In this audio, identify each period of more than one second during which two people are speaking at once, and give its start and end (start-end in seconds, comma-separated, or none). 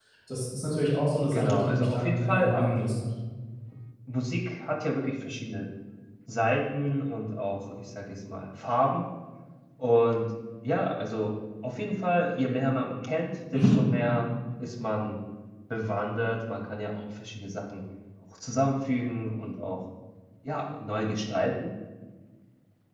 1.3-2.9